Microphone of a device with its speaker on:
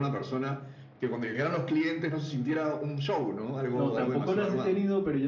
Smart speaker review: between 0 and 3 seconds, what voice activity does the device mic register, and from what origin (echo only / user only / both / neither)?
echo only